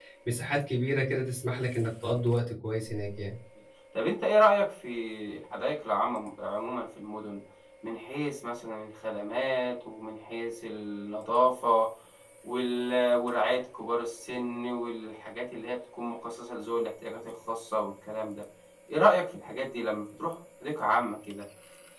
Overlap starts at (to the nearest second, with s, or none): none